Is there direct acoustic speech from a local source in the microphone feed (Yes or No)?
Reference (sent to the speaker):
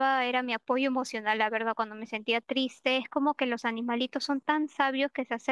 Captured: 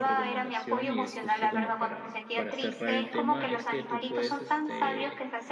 Yes